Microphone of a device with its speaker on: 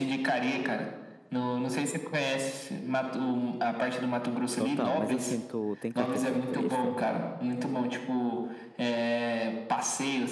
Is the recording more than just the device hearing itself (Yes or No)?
Yes